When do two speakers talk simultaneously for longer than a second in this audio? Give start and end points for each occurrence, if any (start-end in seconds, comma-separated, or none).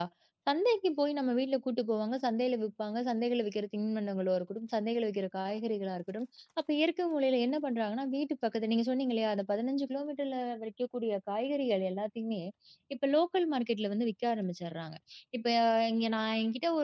none